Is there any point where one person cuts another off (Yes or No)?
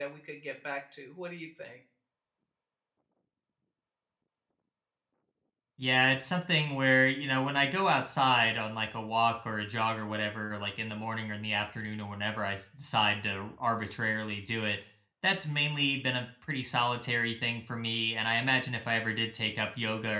No